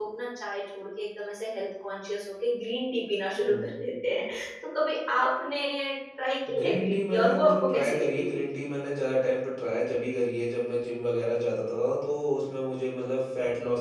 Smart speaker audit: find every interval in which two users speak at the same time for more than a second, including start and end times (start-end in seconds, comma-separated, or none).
6.6-8.4